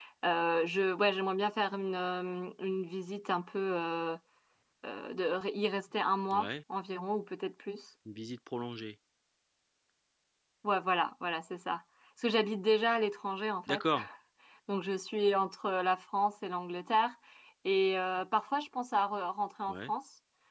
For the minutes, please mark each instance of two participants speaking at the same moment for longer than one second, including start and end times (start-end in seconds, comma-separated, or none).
none